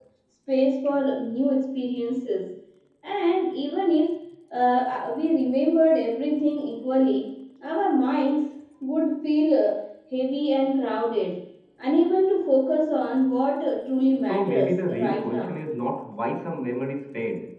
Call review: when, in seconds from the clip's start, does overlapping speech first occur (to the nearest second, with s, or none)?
14 s